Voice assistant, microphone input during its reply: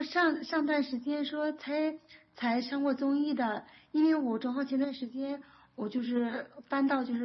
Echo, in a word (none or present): present